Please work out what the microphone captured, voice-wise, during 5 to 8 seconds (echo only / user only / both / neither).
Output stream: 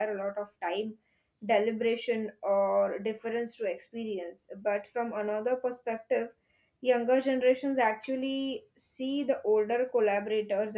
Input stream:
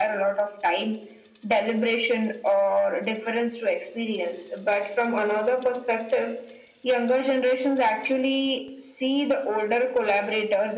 echo only